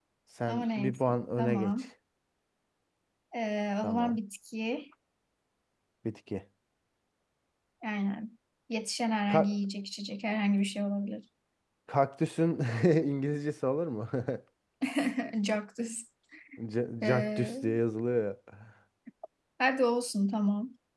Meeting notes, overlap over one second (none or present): present